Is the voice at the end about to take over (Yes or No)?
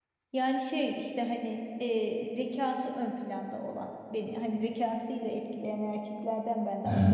Yes